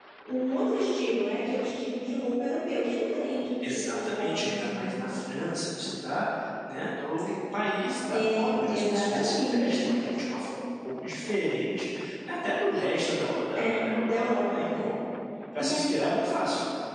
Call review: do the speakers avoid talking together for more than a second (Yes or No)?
No